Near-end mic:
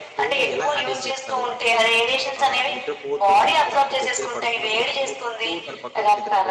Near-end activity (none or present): present